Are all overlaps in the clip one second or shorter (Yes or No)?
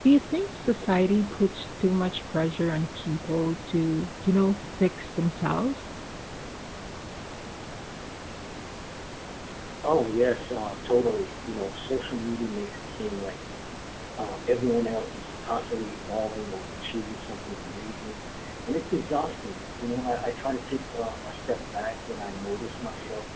Yes